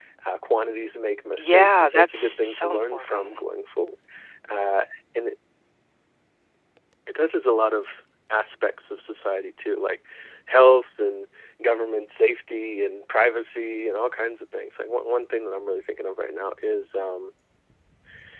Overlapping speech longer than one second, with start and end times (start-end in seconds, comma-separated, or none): 1.4-3.2